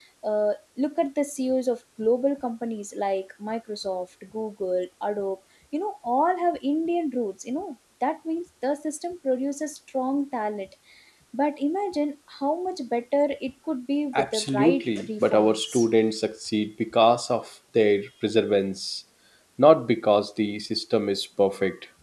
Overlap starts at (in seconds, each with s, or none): 14.1 s